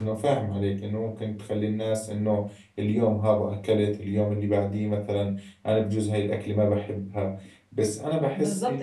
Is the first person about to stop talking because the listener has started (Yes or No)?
Yes